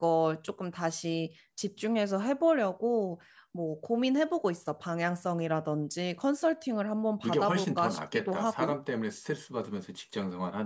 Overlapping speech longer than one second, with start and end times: 7.2-8.7

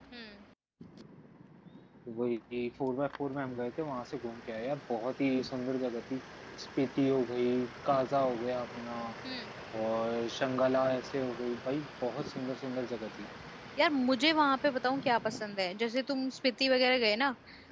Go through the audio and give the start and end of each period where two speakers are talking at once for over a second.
none

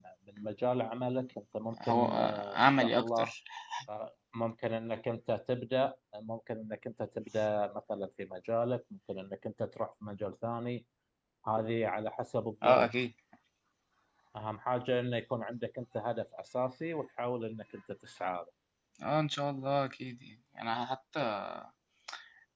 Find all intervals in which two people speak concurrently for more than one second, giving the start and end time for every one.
1.8-3.3

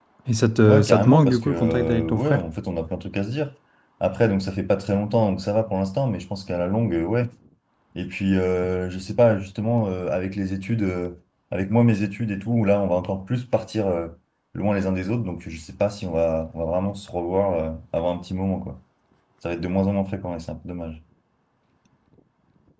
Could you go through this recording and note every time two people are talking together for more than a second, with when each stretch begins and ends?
0.7-2.4

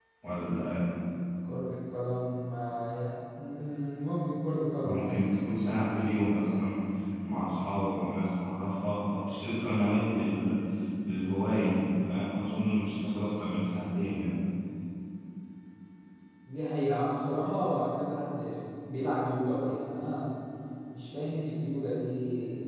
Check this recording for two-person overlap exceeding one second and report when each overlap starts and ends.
none

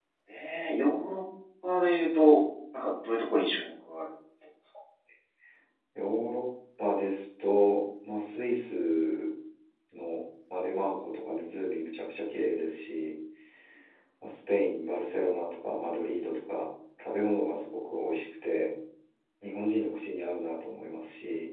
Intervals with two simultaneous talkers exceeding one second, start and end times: none

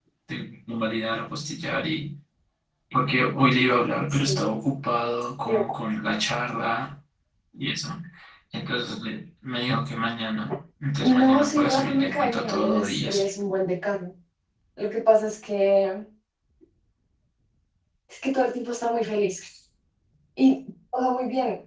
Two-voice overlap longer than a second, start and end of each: 11.2-13.2

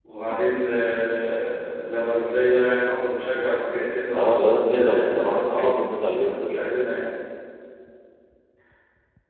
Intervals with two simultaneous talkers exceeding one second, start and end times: 4.1-6.7

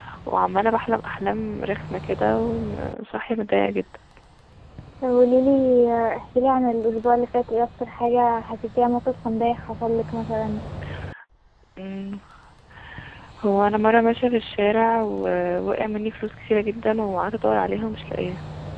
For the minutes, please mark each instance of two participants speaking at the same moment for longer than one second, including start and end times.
none

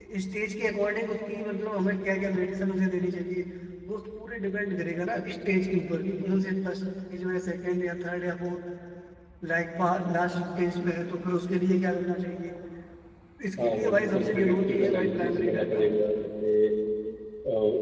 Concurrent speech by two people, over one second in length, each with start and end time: 13.6-15.8

